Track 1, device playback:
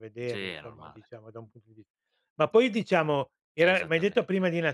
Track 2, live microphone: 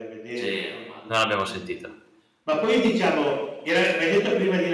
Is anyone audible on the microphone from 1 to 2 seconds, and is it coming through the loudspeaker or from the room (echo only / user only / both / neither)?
both